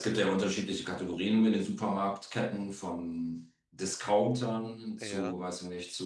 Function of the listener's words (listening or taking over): listening